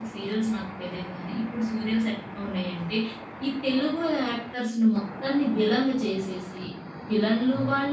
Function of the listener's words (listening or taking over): listening